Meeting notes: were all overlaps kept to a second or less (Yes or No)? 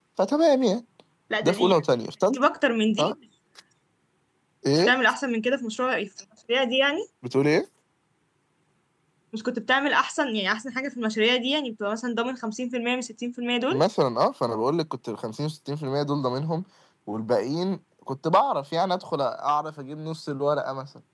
Yes